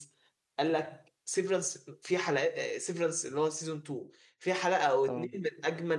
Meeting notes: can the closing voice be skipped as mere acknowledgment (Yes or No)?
Yes